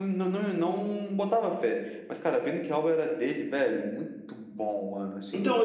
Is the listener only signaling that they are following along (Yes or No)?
No